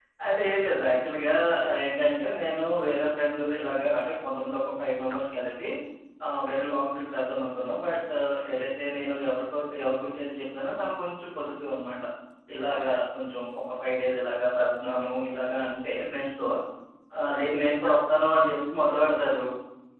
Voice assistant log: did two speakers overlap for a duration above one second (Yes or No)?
No